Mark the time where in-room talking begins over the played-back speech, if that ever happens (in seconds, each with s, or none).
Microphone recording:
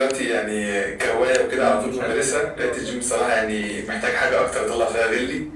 1.6 s